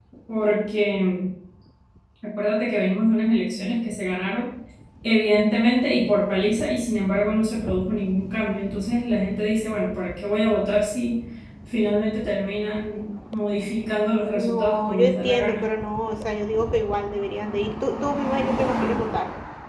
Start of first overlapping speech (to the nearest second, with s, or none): 14 s